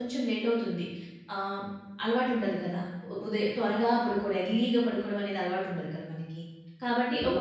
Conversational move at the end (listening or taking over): listening